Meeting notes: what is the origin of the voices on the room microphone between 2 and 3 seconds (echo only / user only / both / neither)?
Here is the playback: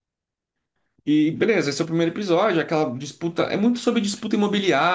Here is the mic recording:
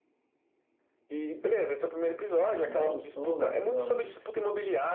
both